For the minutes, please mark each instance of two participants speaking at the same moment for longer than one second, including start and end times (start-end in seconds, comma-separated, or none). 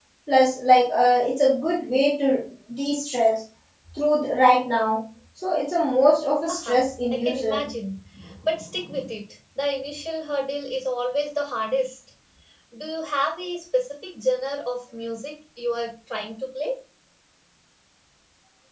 6.5-7.7